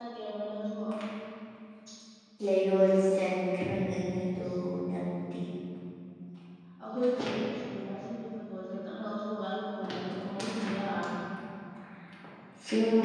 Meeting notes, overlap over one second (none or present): none